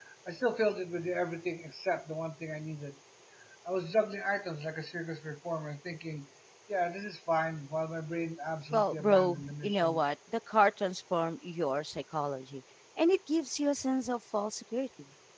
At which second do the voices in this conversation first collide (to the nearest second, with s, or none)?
9 s